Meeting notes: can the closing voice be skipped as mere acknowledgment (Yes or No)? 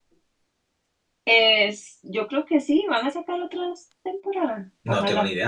No